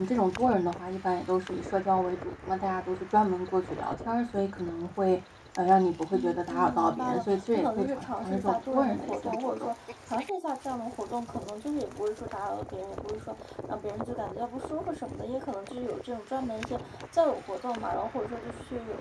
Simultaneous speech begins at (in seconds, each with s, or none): 6.1 s